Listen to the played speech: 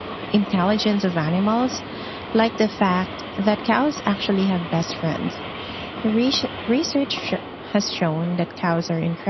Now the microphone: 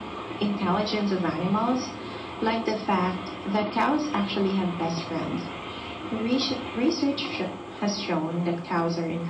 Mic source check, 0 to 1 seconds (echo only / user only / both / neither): echo only